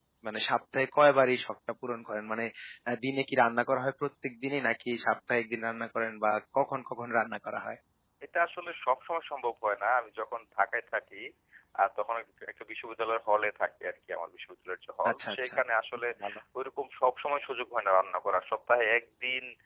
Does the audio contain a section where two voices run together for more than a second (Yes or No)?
No